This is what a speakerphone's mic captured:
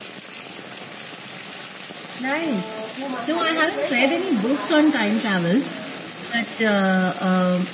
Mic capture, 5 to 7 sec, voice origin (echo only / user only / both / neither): both